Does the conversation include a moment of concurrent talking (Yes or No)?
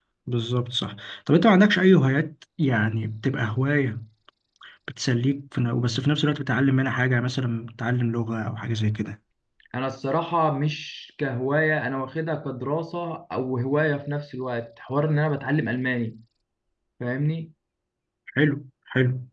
No